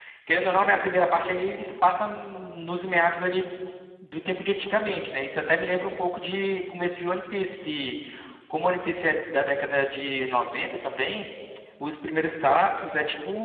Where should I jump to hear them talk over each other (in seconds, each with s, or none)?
none